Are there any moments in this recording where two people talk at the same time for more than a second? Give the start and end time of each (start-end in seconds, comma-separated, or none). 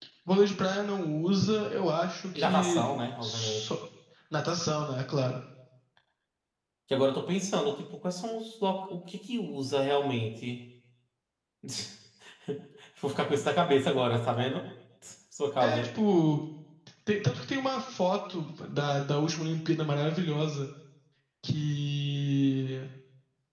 2.4-3.6